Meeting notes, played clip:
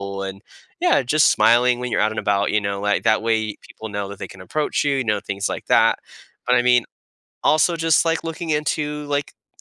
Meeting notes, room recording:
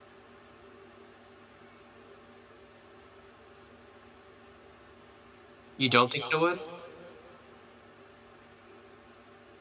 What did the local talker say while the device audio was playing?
you don't think it would

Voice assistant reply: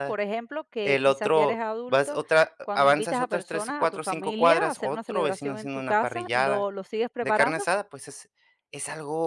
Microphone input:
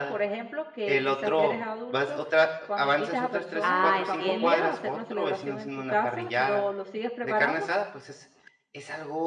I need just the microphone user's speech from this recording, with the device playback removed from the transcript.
Ah, entiendo.

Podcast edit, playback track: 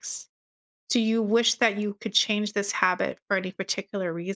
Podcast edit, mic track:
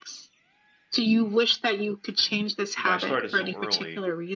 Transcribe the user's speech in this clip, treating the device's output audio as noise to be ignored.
you know i started so early

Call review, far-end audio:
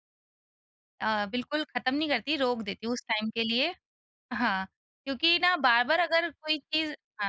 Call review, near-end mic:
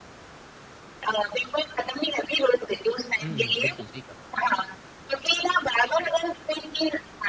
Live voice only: हुँ, हुँ, बिल्कुल सही कहा।

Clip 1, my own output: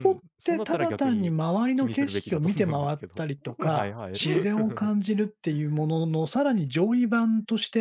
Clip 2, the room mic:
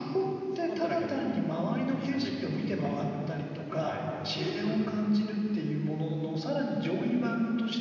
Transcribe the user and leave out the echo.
none

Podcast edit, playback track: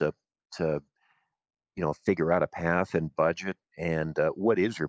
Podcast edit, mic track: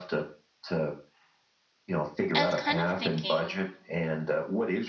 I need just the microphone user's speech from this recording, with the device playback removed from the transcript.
I was kind of thinking.

